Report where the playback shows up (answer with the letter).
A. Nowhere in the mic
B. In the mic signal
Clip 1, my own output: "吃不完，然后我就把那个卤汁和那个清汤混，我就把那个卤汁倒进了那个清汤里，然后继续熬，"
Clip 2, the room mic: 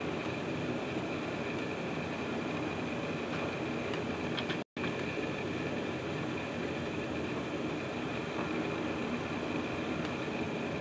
A